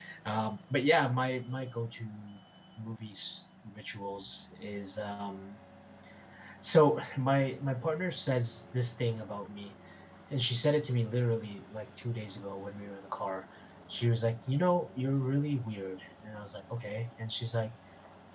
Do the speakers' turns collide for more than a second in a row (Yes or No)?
No